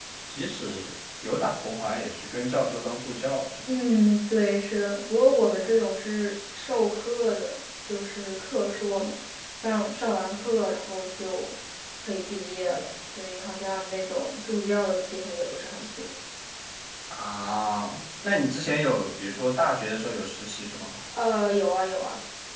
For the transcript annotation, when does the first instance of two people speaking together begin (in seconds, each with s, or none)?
none